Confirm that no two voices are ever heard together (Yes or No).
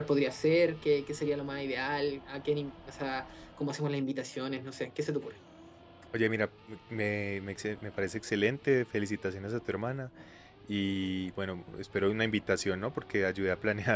Yes